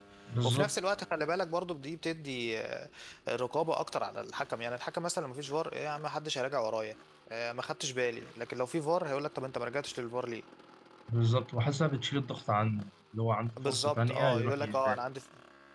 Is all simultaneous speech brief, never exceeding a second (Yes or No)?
No